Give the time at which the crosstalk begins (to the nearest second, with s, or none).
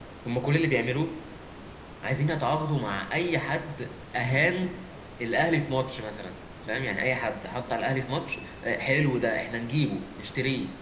none